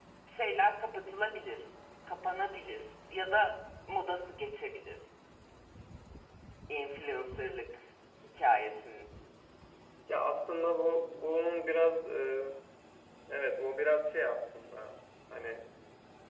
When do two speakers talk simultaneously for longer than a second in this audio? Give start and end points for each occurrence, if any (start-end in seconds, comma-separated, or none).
none